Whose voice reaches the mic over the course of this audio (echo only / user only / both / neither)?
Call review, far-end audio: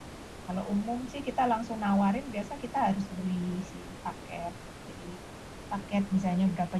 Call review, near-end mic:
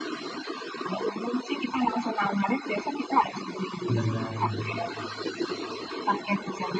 both